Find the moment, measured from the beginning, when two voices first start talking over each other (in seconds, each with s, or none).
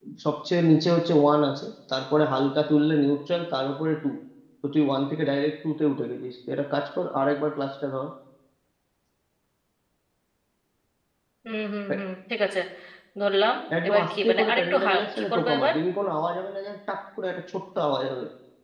13.8 s